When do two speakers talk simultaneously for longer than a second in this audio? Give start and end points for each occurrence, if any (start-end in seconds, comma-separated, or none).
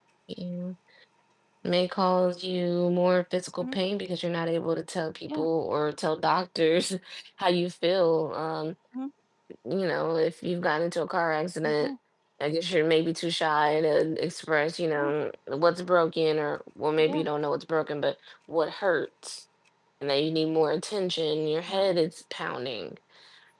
none